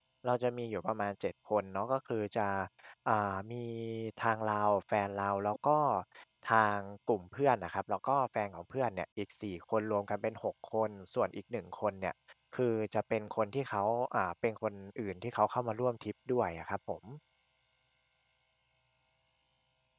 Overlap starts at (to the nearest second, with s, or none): none